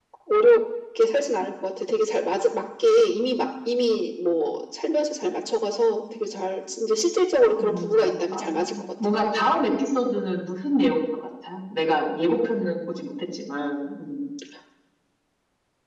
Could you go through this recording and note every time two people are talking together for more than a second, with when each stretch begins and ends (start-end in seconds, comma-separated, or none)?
7.6-9.1